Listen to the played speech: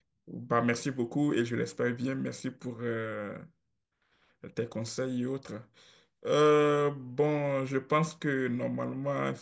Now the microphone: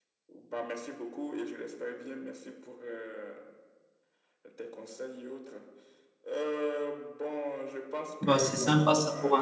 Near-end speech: present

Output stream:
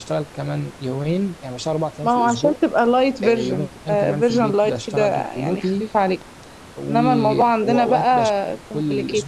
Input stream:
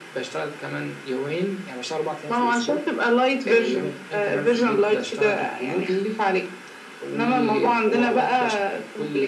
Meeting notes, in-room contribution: none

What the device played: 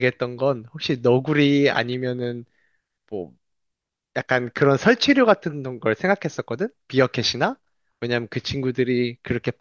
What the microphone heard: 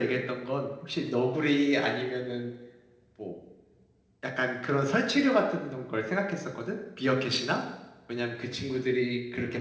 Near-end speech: none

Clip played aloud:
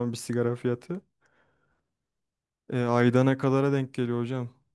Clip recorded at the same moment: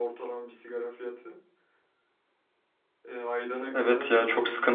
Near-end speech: present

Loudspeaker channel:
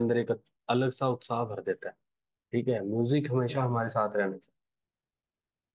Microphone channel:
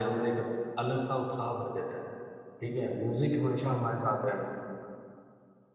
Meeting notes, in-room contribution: none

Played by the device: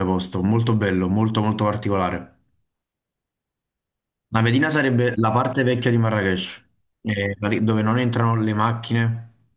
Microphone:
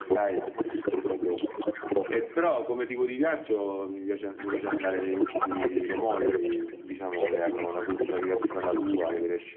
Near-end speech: present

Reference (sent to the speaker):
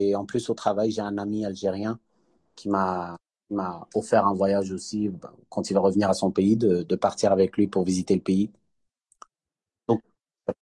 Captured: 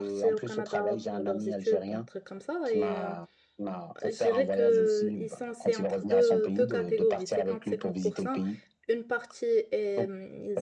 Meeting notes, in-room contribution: present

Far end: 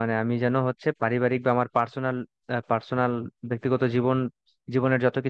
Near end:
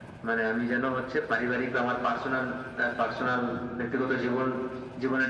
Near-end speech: none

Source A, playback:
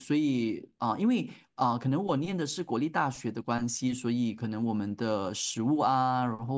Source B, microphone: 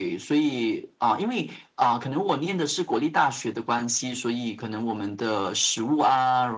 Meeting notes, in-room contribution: none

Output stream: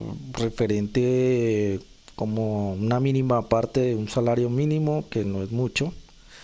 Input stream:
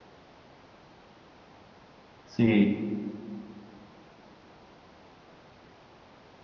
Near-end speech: present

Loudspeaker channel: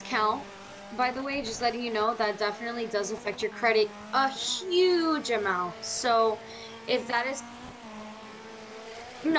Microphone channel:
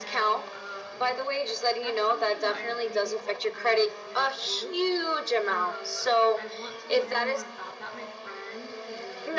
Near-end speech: present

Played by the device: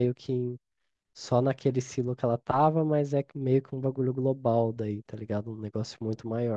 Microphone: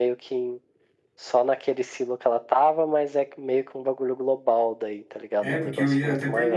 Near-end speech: present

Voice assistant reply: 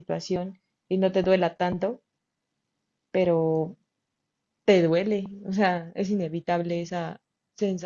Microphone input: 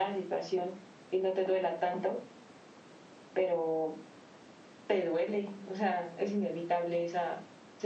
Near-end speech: none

